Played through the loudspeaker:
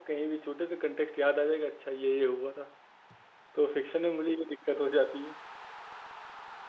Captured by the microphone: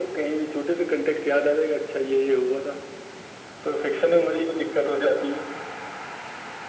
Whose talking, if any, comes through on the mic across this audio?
echo only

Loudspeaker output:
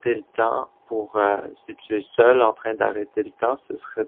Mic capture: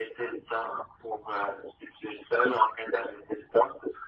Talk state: echo only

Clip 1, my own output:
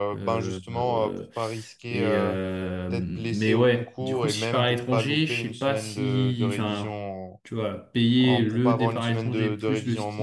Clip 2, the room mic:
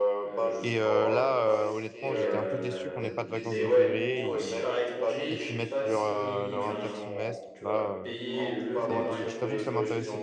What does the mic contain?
both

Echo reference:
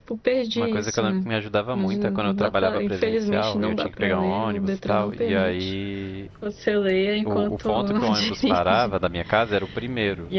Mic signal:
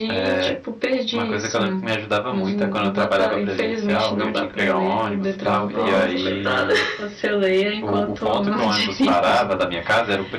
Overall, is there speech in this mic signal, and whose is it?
both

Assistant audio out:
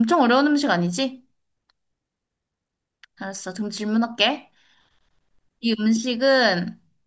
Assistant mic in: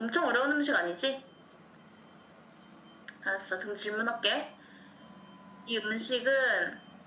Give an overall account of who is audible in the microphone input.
echo only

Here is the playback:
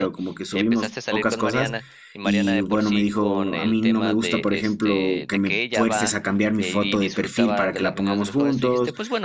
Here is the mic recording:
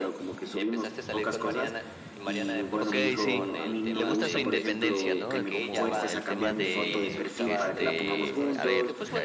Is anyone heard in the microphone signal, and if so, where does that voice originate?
both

